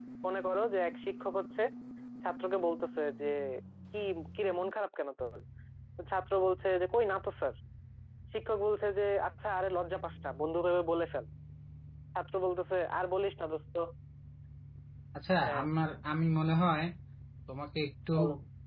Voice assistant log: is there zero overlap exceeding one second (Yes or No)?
Yes